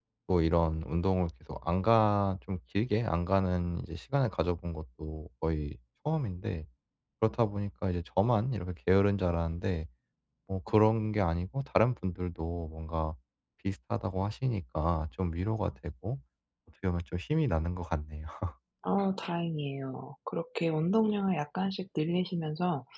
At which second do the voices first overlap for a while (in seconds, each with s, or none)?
none